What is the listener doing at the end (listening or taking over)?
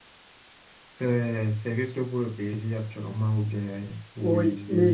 taking over